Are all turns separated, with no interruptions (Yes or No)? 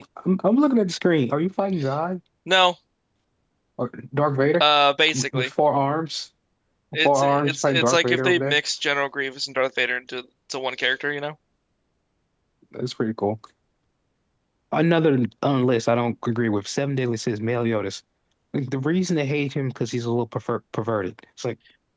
No